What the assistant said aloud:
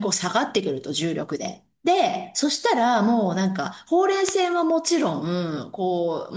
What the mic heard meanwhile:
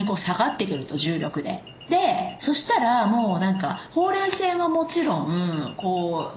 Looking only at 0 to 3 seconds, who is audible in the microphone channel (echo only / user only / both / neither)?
echo only